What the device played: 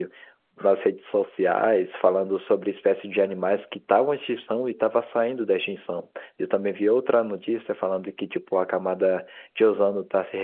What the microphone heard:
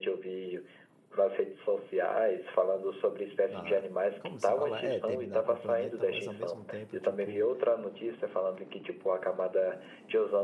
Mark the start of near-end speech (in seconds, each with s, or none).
3.5 s